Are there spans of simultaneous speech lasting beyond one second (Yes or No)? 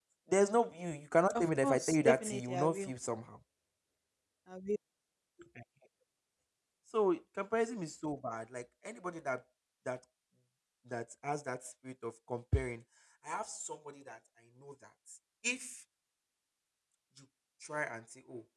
Yes